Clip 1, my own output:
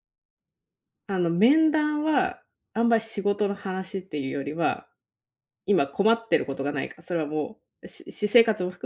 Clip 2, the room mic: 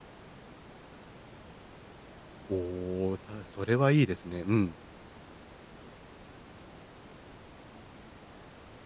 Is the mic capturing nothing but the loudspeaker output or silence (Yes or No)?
No